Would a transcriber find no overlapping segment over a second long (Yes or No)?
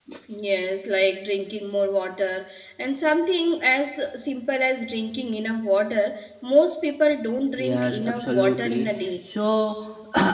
No